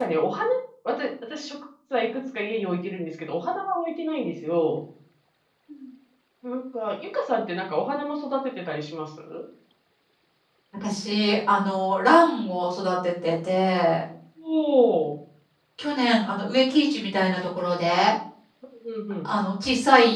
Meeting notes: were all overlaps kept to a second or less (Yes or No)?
Yes